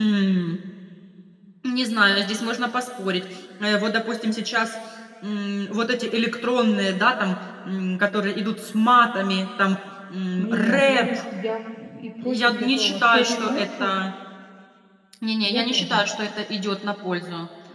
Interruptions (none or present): present